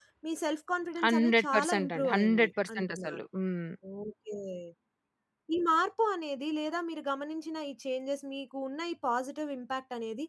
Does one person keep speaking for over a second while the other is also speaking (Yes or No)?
Yes